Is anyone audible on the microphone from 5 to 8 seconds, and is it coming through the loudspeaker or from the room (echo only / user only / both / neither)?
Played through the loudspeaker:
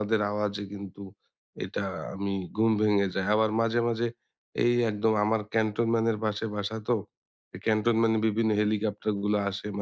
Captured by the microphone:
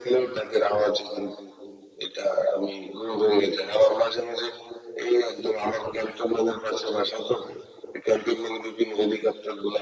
echo only